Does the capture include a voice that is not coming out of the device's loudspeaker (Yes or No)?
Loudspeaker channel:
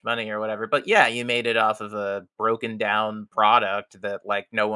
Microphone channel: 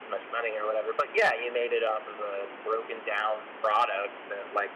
No